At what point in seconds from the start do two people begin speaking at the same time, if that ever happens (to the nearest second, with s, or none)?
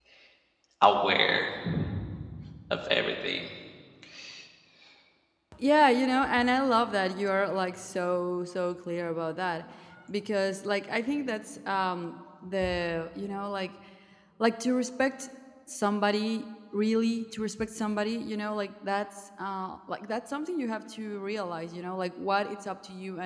none